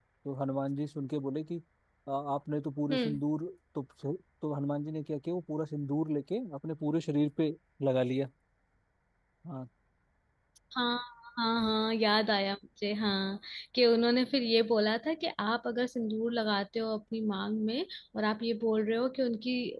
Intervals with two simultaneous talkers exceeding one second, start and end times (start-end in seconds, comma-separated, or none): none